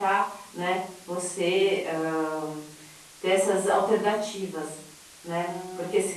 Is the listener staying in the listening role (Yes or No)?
Yes